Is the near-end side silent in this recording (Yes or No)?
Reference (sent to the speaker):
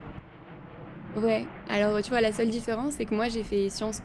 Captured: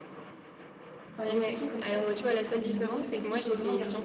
No